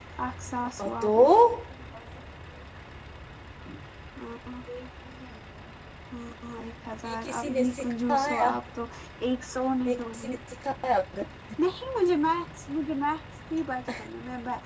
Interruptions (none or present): present